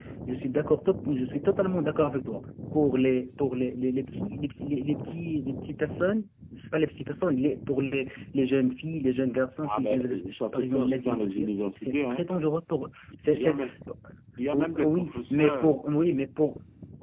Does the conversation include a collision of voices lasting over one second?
Yes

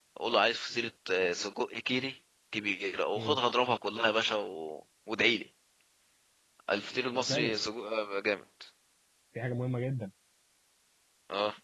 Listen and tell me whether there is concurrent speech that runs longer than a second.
No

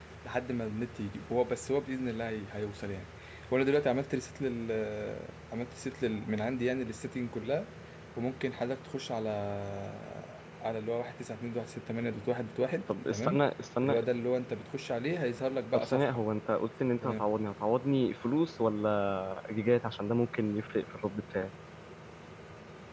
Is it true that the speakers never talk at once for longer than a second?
Yes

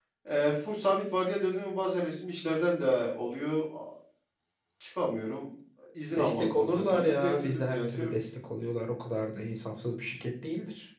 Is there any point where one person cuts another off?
Yes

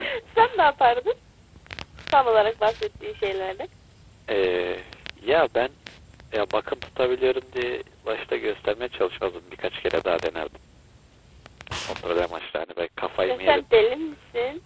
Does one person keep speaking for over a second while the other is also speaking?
No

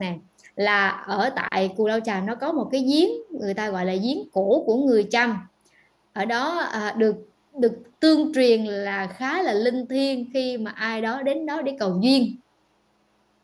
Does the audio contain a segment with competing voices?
No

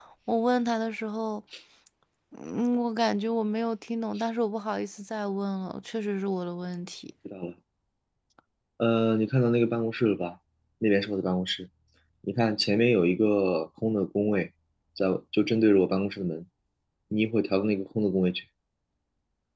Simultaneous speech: No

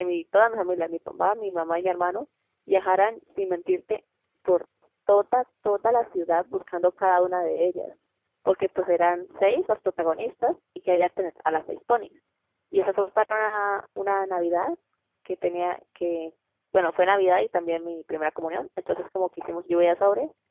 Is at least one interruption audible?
No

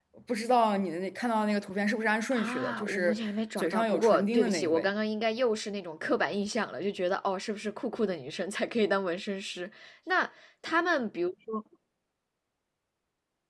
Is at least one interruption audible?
Yes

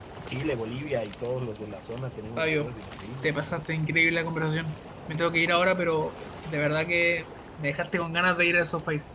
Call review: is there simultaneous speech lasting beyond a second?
No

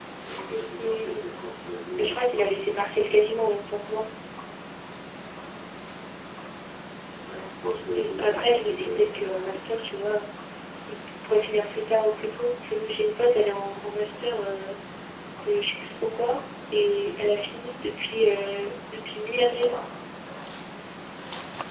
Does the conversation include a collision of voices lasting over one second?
Yes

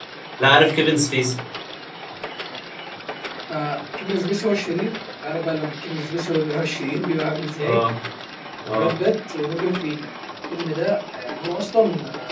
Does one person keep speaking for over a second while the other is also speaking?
No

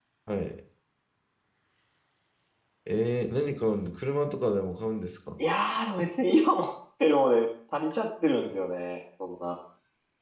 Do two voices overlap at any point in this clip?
No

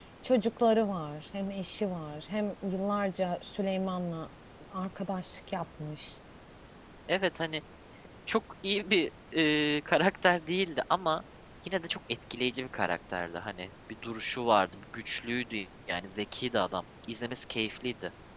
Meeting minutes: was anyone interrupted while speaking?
No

